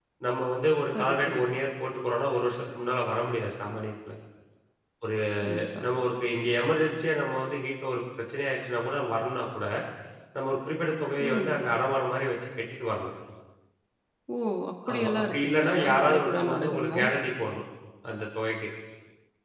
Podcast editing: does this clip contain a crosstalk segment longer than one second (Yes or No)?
Yes